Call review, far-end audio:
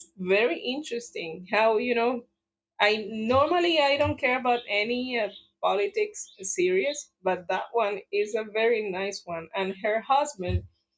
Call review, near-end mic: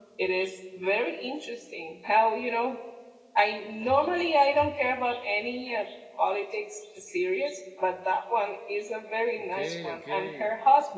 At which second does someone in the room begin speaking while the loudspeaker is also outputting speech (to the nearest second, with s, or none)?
9 s